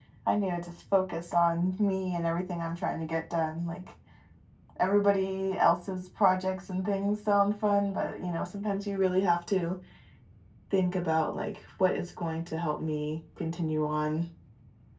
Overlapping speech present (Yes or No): No